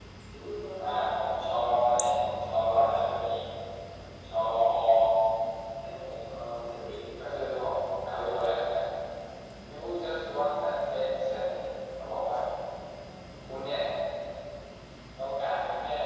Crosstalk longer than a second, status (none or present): present